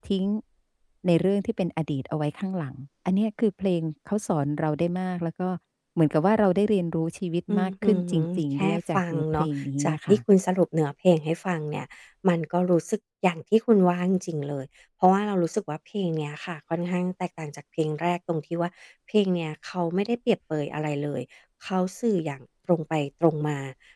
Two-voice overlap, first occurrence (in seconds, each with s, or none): 7.5 s